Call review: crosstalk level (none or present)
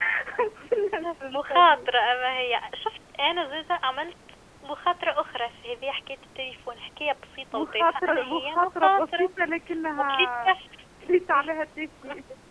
present